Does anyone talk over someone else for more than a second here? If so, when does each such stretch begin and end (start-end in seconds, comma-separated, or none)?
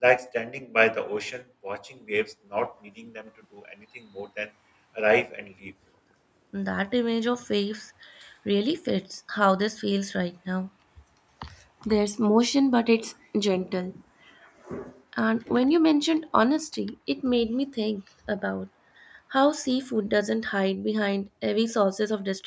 none